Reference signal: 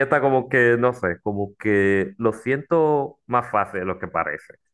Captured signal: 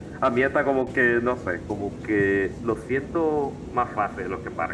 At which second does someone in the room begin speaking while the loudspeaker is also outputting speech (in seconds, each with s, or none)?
none